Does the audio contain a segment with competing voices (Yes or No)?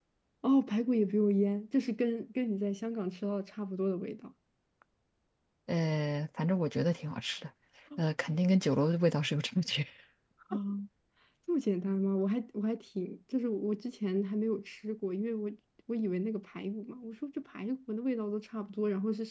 No